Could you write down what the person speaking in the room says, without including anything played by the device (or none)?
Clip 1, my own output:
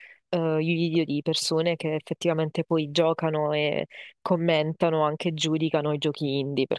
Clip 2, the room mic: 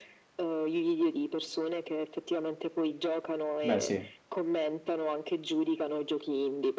Beh, sì.